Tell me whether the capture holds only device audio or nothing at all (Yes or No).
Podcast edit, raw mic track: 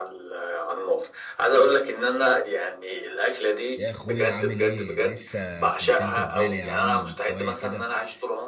No